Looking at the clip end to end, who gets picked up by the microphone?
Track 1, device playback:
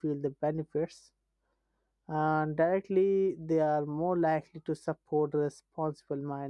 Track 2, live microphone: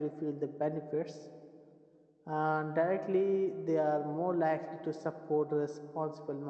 echo only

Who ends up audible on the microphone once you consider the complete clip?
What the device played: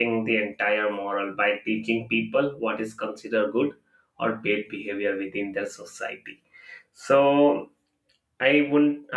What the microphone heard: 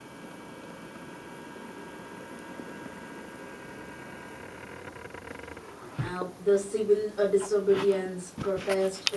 user only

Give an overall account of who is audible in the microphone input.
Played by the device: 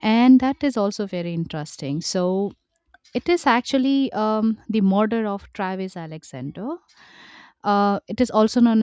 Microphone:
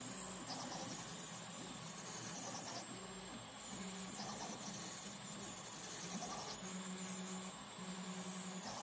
neither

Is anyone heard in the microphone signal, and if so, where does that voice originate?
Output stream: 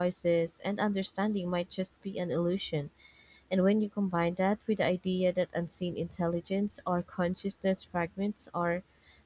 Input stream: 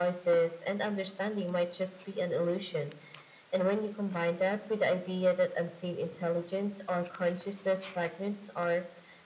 echo only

